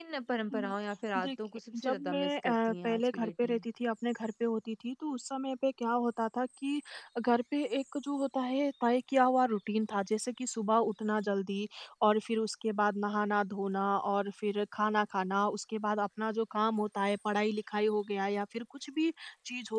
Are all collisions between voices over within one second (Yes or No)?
No